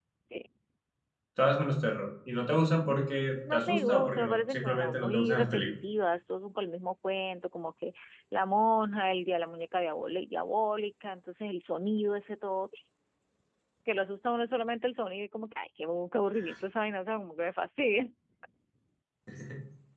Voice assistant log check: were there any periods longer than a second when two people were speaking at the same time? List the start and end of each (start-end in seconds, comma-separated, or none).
2.9-5.7